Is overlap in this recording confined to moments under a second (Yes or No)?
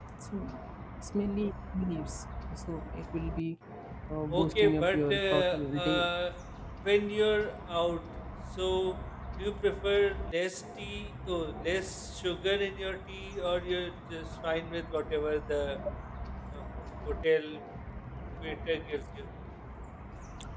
No